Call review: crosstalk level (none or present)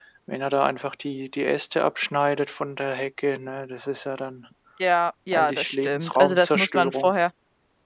present